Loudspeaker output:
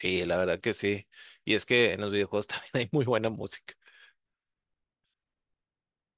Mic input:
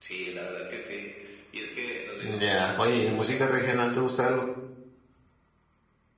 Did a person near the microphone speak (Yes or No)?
Yes